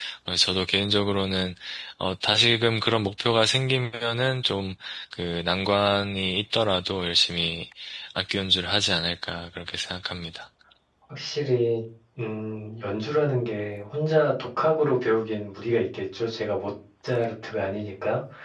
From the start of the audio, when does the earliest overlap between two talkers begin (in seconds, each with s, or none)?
none